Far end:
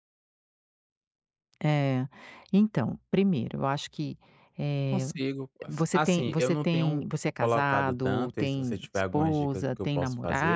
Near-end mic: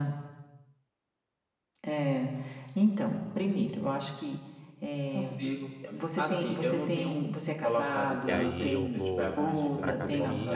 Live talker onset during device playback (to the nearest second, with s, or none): 8 s